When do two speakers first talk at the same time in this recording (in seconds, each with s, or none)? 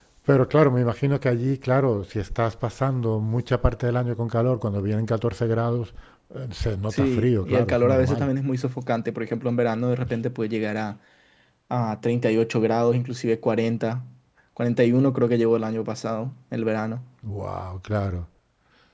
6.9 s